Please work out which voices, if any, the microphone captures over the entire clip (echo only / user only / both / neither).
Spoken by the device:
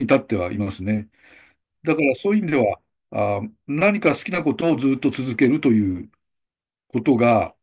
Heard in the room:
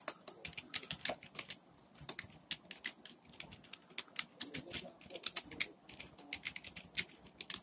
neither